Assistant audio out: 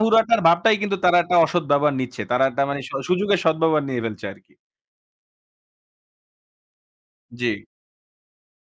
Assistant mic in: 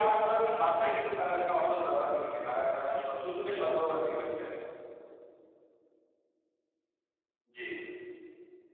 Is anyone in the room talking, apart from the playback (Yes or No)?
No